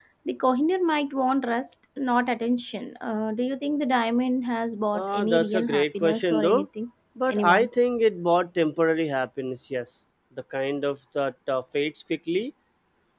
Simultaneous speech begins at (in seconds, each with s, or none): 5.0 s